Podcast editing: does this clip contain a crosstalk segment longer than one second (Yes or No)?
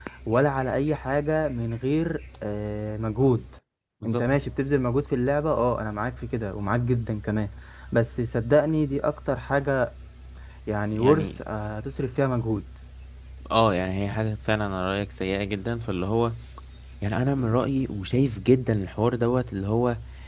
No